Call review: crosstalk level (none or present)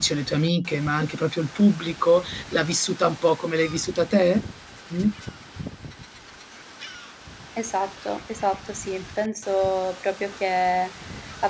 none